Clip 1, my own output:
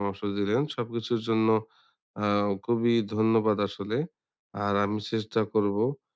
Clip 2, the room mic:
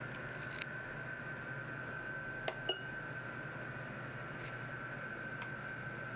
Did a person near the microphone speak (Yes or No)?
No